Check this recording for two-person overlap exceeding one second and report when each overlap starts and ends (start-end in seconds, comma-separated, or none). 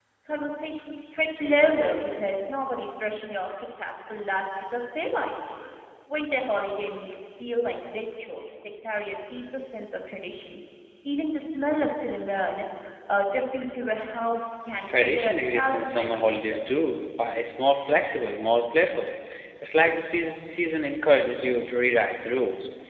15.0-16.6